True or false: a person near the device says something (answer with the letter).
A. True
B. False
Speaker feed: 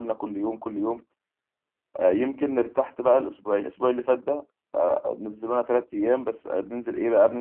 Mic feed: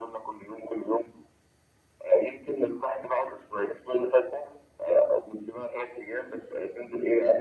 B